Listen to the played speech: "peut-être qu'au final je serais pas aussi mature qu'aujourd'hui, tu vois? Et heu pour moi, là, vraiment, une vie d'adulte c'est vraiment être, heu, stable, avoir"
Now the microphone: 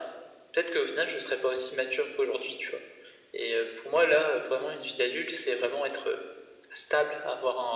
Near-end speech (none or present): none